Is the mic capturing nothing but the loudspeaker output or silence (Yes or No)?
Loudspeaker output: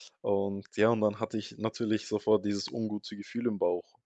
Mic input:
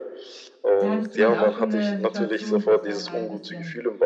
No